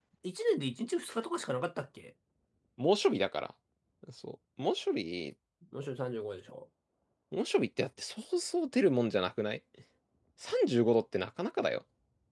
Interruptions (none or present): none